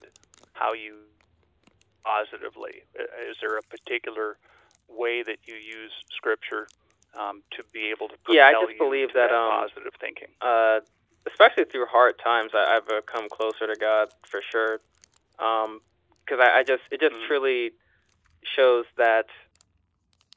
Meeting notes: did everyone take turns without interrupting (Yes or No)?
No